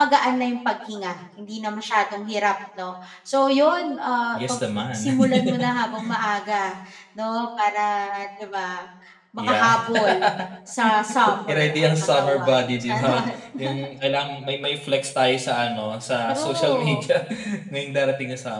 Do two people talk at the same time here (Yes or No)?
Yes